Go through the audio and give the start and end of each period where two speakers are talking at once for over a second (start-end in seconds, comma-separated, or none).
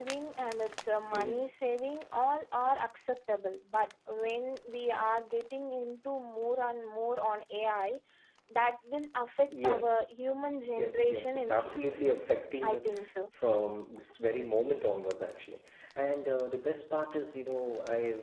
10.8-12.2